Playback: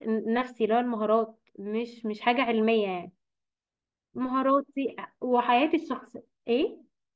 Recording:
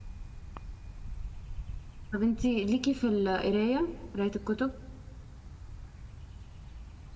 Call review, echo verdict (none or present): none